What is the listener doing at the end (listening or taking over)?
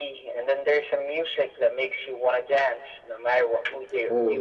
taking over